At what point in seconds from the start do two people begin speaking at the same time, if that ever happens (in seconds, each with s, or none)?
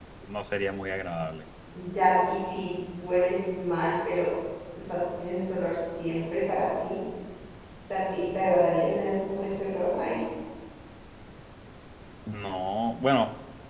none